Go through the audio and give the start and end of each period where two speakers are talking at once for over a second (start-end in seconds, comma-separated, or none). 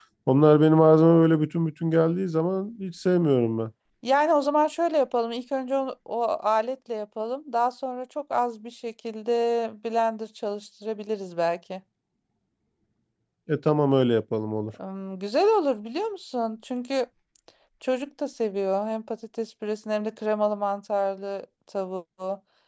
none